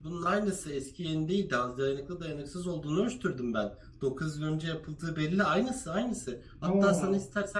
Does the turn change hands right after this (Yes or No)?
No